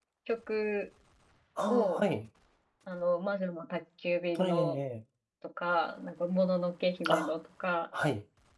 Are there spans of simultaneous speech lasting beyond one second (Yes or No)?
No